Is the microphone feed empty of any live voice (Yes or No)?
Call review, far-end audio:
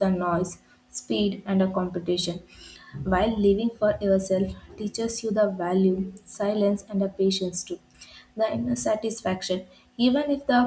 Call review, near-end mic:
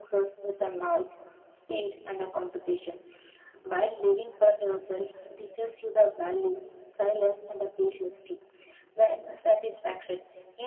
Yes